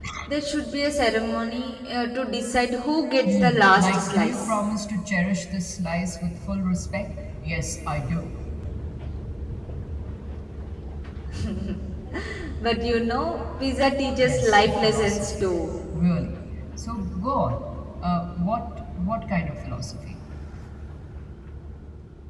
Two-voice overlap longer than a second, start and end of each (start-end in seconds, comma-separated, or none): 3.2-4.6, 14.2-15.5